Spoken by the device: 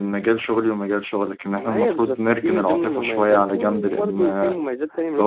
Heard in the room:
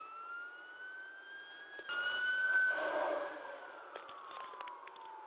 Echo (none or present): none